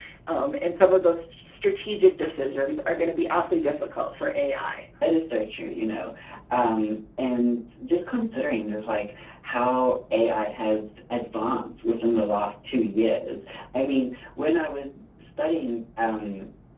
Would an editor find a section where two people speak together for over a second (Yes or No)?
No